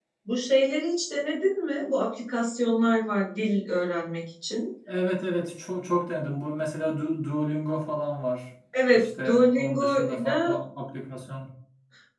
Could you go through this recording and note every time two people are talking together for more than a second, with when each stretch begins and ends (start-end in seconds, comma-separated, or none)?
8.9-10.5